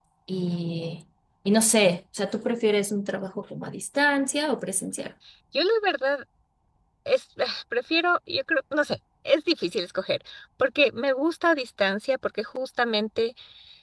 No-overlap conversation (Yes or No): Yes